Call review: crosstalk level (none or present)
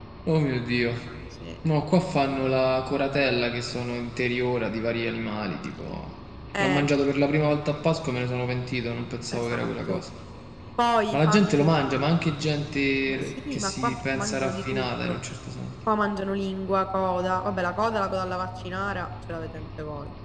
present